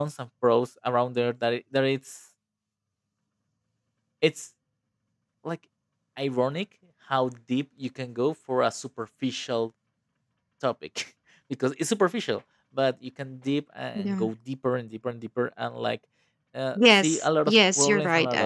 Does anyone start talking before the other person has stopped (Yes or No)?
Yes